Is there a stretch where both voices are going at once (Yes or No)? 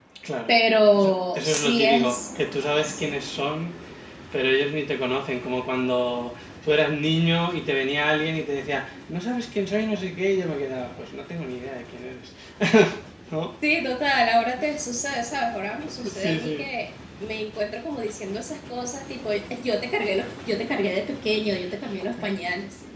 Yes